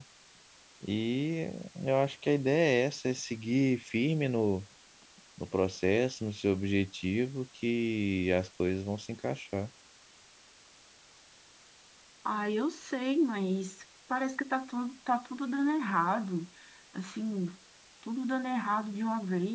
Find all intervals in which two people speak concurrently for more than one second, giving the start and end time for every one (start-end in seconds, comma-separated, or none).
none